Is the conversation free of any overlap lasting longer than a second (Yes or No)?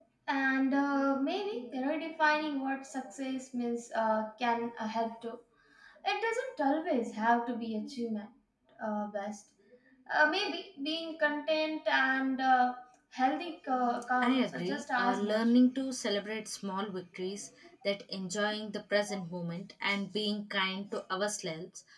No